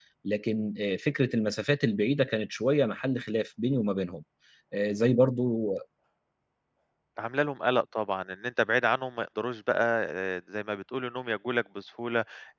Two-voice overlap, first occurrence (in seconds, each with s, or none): none